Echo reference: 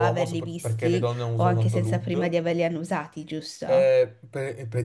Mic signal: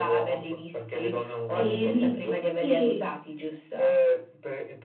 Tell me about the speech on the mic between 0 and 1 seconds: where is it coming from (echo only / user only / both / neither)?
echo only